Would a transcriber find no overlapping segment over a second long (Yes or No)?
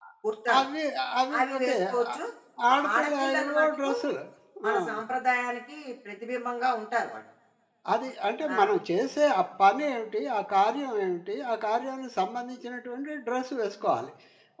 No